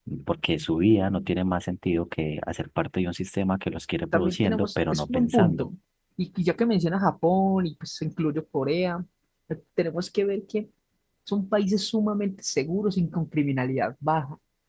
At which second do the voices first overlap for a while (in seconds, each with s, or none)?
4.1 s